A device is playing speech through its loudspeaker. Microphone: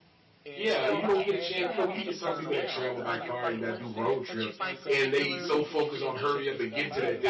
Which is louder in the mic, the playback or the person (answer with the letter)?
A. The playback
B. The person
B